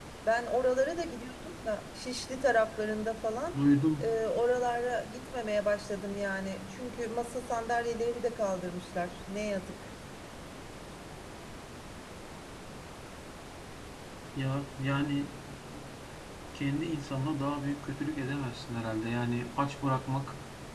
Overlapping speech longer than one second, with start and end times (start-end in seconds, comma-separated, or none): none